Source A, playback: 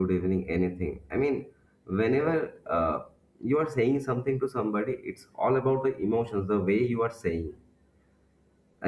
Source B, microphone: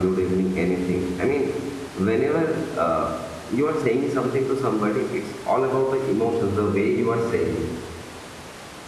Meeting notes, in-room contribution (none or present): none